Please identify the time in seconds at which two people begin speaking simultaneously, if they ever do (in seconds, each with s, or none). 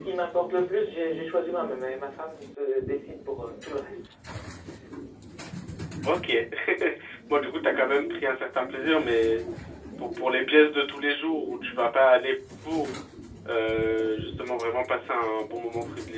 none